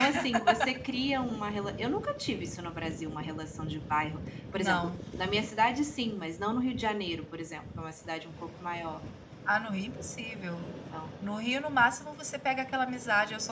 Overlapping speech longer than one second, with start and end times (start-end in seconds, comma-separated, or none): none